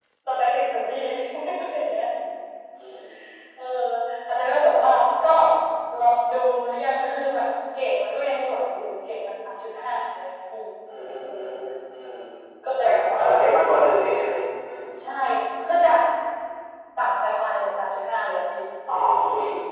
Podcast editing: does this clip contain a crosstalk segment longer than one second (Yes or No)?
Yes